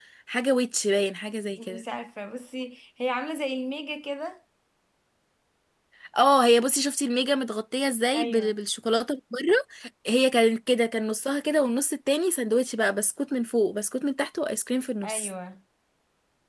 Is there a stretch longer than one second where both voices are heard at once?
No

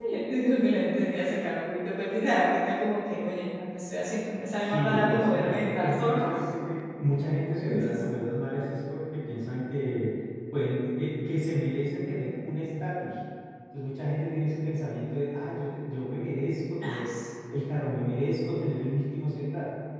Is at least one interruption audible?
Yes, from 4.7 s

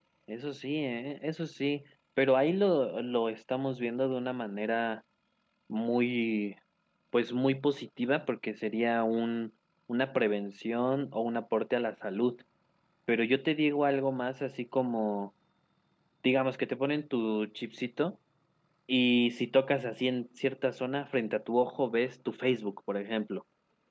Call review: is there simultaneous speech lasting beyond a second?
No

